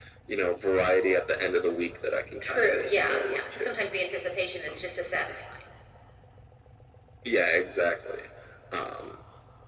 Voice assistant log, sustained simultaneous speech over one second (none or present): present